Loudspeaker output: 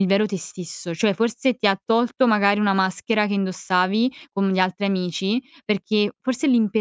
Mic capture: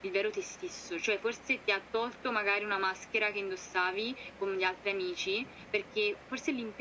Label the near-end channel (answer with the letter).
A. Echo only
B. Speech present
A